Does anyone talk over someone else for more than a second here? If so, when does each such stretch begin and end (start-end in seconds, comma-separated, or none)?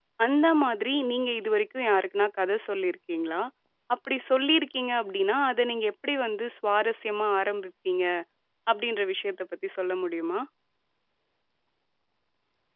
none